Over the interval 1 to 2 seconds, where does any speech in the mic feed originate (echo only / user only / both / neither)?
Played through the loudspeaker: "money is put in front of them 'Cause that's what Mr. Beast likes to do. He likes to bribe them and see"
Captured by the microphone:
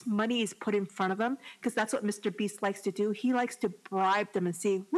echo only